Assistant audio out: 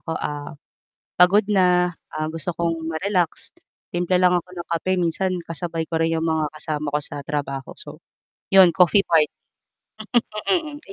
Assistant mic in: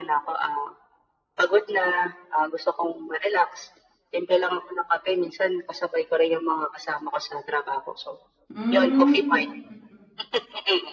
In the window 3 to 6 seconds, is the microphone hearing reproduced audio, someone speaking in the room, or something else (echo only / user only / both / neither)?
echo only